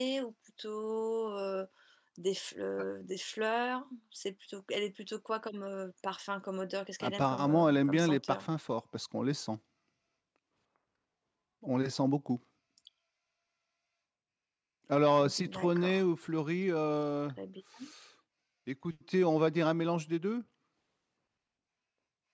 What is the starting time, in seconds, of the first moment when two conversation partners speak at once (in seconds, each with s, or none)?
7.0 s